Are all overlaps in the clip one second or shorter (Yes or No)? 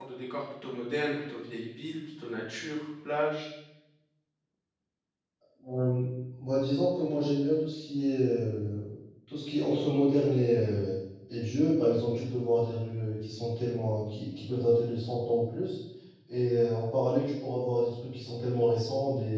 Yes